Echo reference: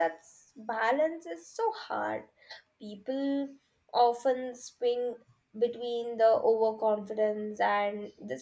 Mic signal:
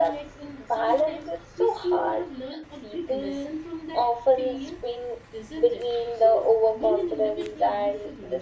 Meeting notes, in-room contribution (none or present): present